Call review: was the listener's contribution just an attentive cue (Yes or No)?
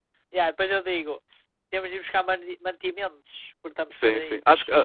No